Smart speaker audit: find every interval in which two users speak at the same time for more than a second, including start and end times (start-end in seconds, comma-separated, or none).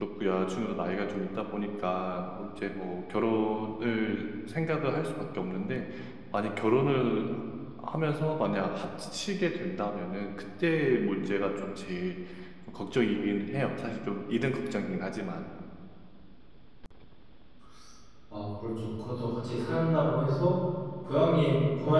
none